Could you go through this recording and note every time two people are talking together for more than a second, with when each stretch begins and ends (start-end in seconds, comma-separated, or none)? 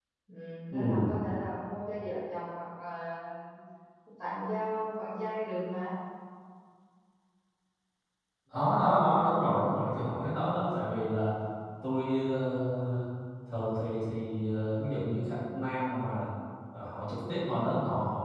none